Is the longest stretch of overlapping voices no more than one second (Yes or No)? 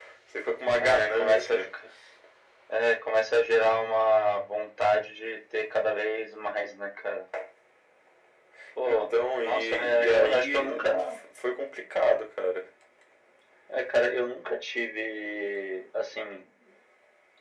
No